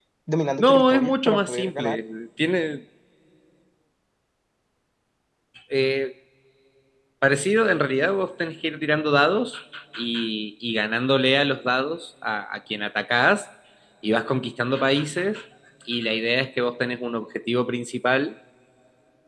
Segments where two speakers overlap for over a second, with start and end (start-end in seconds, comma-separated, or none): 0.6-2.0